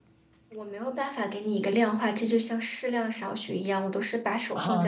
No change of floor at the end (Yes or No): No